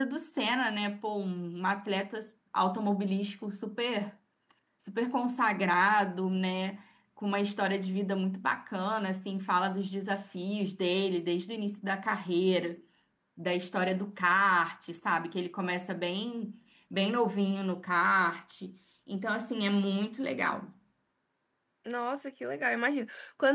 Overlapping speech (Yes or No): No